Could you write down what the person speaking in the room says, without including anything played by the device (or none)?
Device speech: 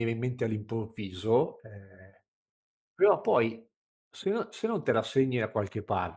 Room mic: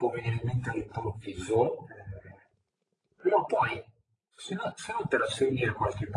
none